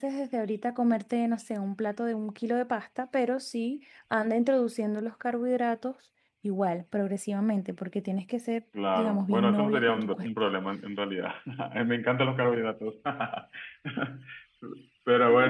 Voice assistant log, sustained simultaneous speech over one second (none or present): present